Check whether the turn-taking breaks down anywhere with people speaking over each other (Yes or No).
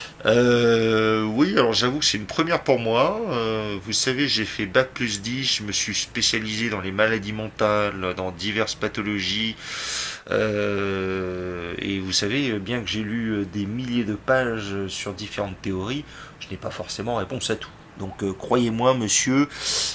No